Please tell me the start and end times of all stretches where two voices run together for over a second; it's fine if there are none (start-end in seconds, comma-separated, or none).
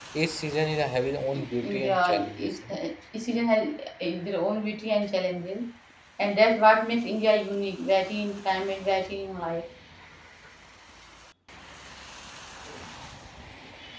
1.3-2.8